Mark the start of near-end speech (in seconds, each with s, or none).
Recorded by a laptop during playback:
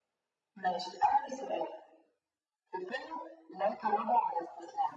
none